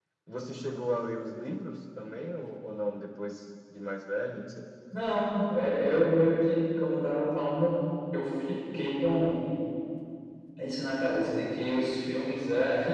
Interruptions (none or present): none